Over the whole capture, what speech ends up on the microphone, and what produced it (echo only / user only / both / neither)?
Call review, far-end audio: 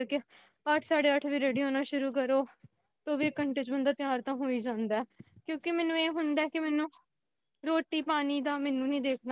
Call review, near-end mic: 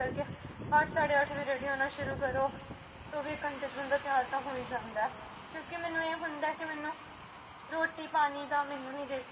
echo only